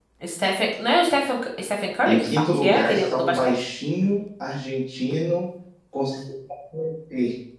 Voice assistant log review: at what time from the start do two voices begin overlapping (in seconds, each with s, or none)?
2.0 s